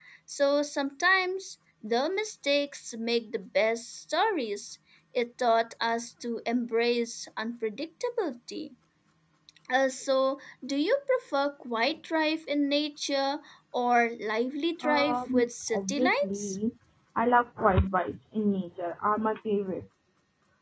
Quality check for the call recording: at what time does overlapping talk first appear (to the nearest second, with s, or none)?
15 s